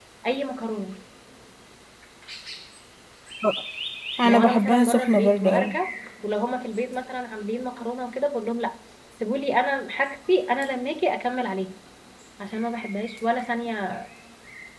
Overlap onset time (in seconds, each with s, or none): 4.2 s